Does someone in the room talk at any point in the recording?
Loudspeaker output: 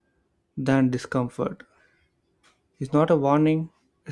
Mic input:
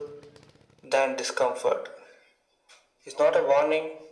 No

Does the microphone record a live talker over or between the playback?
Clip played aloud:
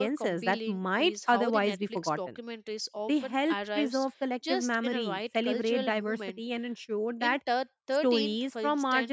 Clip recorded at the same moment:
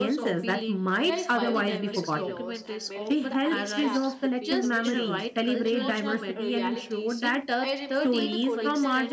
Yes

